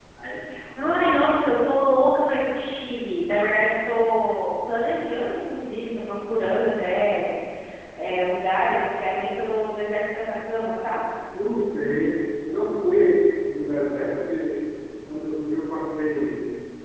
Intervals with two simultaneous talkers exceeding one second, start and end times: none

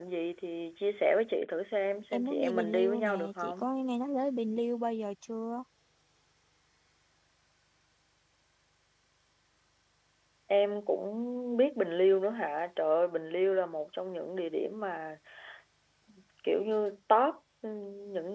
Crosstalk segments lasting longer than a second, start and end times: 2.1-3.7

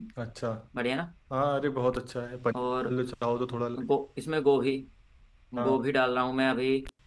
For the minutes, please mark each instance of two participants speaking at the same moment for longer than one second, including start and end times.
none

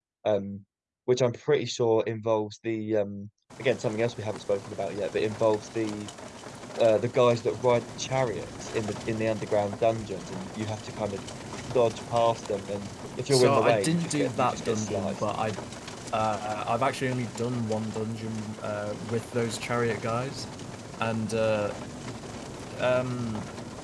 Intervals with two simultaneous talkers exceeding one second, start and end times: 13.3-15.2

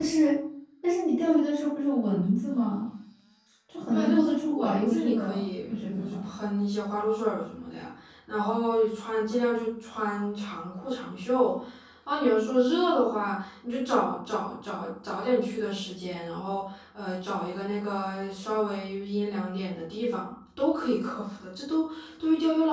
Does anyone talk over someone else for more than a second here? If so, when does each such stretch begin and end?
3.9-6.2

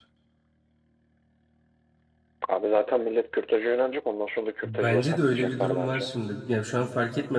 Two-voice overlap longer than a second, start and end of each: 4.6-6.1

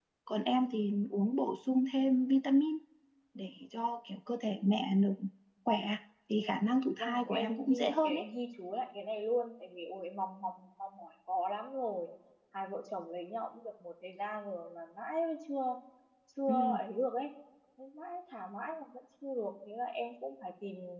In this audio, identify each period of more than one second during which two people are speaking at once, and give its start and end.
7.0-8.2

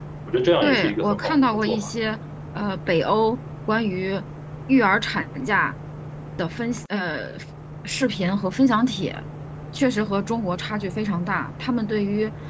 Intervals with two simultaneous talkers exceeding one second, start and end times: 0.6-1.9

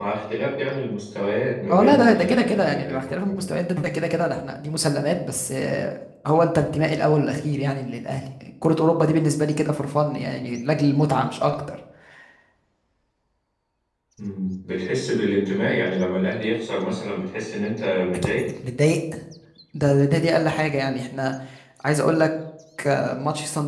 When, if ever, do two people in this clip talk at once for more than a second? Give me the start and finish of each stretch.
1.7-3.2

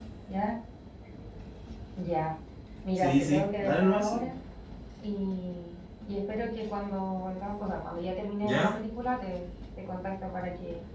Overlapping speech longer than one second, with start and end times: 3.0-4.3

